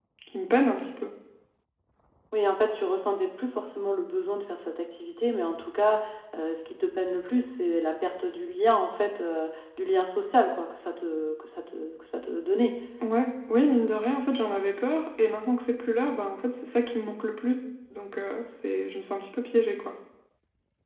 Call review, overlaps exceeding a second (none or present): none